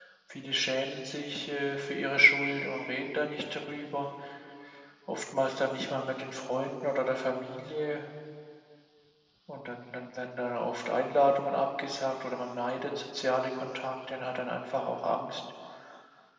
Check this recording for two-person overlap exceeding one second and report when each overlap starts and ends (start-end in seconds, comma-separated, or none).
none